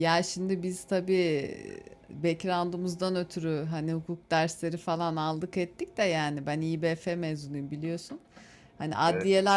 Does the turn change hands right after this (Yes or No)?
No